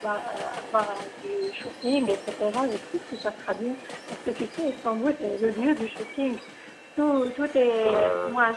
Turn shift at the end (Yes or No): No